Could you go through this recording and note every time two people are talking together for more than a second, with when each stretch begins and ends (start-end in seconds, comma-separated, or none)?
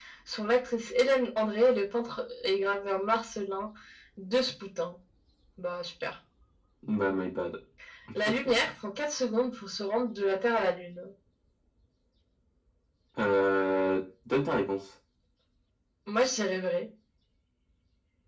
none